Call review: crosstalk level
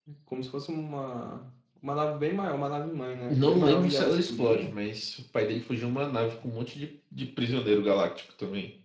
present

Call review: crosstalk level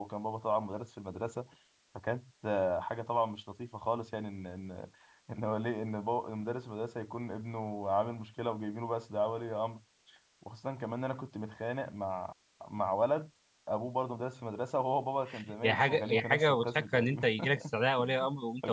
present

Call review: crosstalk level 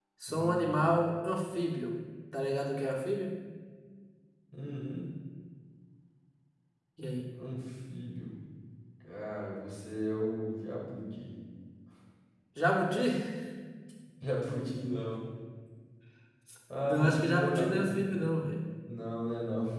present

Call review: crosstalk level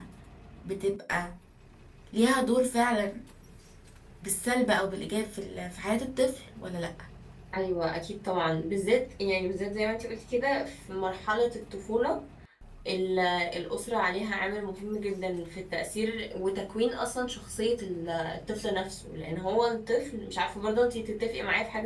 none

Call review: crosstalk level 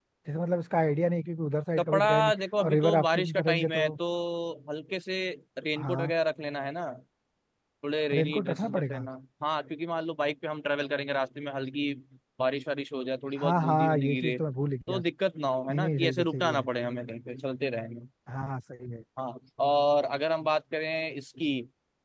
present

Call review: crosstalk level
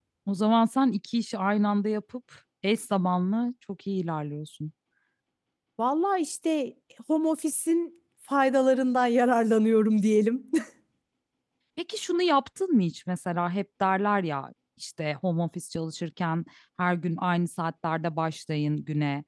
none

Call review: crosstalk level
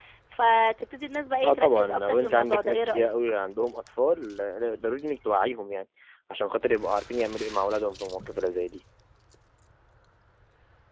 present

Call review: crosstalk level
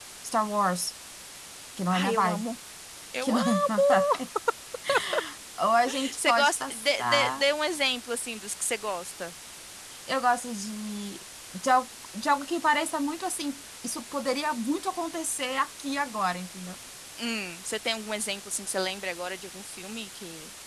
present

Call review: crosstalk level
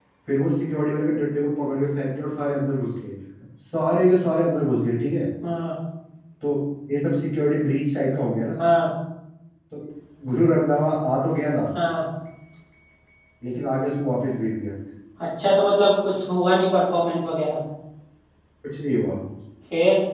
none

